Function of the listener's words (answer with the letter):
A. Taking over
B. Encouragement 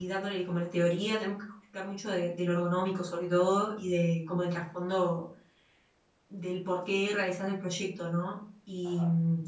B